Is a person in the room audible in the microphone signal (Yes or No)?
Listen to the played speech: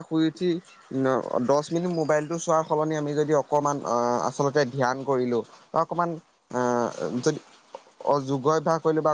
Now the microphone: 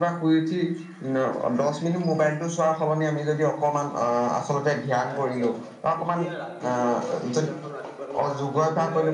Yes